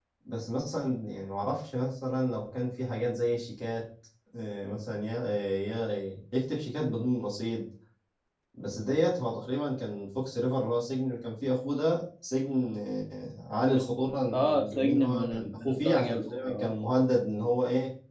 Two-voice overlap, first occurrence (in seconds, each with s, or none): 14.3 s